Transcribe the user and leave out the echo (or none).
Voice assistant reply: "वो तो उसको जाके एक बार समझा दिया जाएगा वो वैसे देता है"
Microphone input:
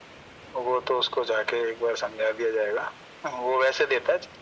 none